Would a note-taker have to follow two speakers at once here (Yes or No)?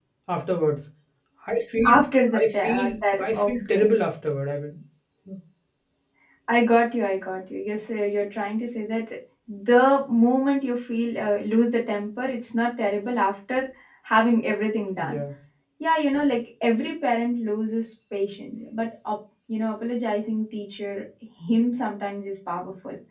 Yes